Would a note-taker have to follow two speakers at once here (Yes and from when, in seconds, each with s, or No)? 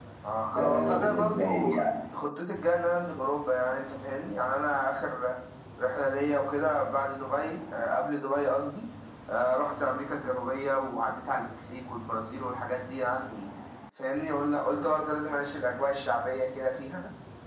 Yes, from 0.6 s